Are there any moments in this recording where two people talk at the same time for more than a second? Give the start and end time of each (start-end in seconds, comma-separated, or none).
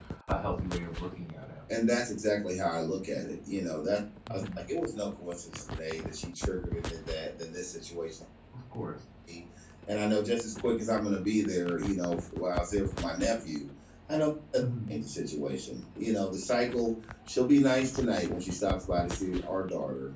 none